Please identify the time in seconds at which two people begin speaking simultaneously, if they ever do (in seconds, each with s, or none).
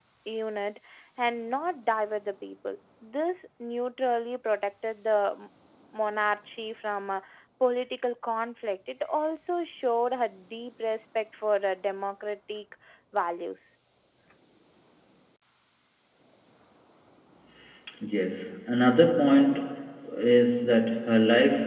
none